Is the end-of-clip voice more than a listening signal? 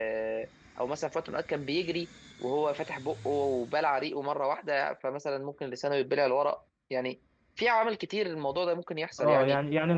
Yes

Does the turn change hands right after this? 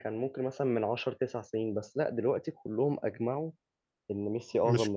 Yes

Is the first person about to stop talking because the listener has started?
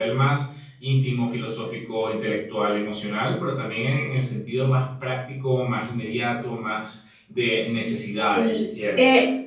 Yes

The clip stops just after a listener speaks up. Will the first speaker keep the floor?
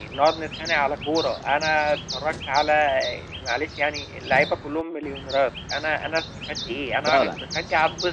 Yes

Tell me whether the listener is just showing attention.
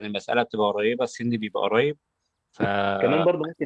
No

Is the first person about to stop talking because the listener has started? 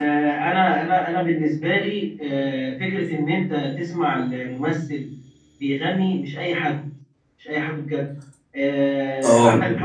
No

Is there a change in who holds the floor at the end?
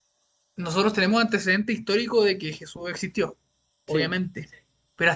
No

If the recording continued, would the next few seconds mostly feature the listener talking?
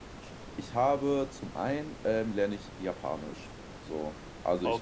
No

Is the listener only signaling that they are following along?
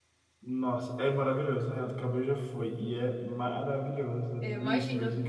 Yes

